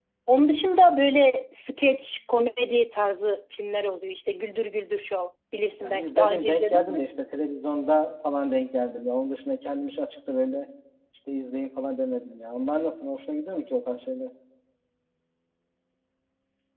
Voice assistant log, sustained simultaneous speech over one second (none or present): present